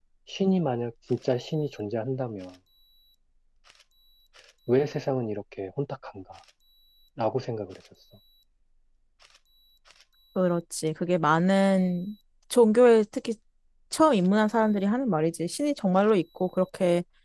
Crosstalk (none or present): none